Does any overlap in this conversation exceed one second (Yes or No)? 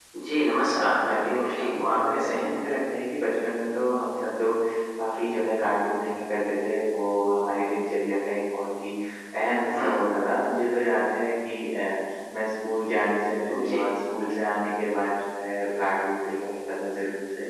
Yes